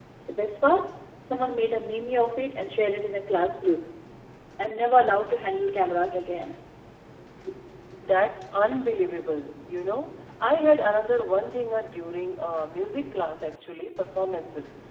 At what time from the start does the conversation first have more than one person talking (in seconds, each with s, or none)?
none